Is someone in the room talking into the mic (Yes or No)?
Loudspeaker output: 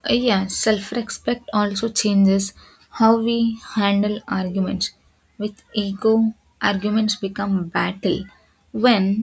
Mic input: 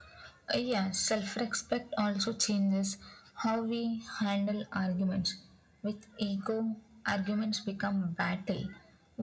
No